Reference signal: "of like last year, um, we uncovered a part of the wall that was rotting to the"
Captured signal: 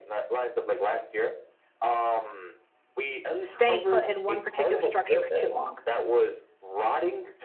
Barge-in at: 3.4 s

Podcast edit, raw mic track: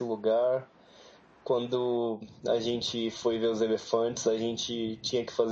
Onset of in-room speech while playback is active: none

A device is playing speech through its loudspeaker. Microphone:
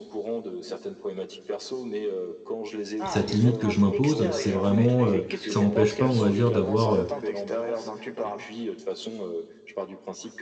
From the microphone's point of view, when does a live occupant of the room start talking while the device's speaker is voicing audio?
3.0 s

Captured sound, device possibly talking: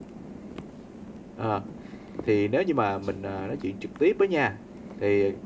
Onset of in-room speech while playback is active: 1.3 s

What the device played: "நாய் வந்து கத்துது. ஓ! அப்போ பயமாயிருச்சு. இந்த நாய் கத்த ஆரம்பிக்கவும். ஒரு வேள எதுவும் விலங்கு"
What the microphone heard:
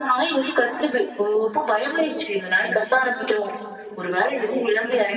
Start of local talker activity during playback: none

